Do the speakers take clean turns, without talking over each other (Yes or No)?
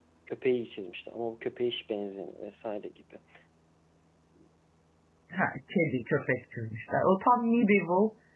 Yes